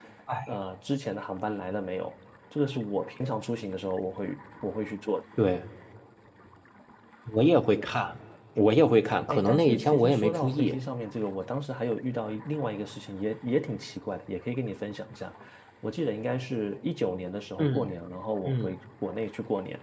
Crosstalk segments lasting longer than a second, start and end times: 9.3-10.8

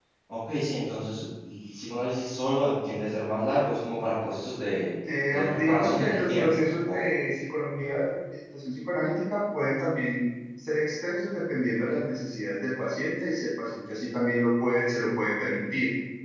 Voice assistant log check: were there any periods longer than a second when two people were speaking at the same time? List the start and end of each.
5.3-7.2

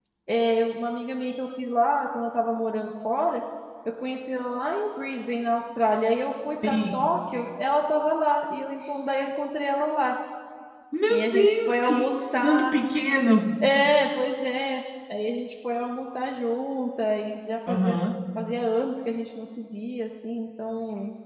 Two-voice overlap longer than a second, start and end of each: 11.1-12.7

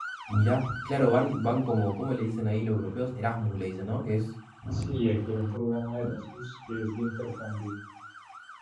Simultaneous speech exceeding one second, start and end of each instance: none

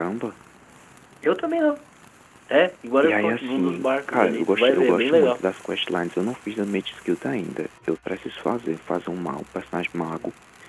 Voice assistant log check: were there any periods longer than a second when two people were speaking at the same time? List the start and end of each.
3.0-5.4

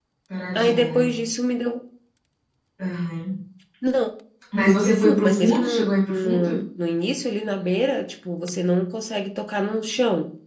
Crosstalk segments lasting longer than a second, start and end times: 4.7-6.5

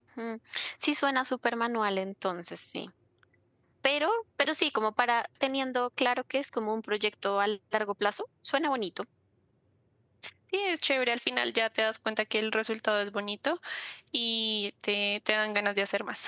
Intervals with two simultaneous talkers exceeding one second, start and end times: none

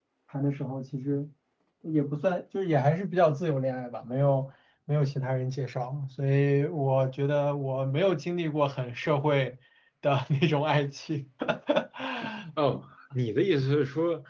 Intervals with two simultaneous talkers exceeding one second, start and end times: none

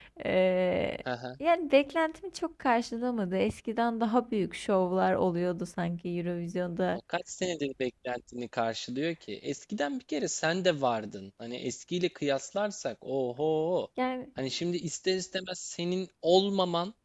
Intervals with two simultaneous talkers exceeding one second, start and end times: none

